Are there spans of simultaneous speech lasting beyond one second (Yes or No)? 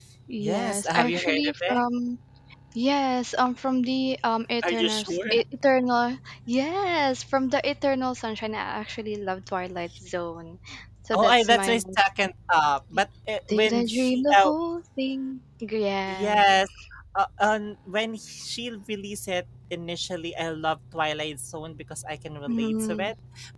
Yes